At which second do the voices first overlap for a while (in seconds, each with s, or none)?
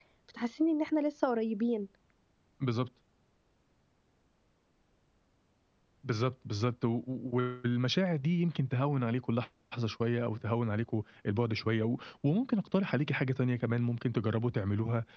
none